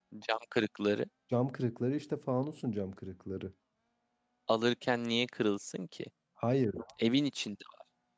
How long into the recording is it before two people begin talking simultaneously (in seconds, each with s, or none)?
none